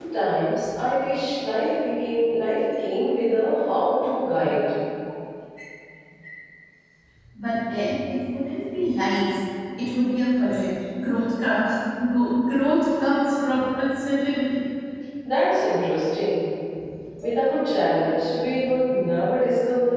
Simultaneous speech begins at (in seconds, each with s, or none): none